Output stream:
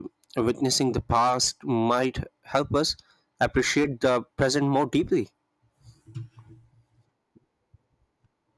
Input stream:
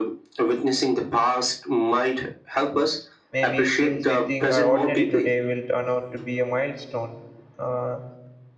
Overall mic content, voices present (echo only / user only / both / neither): both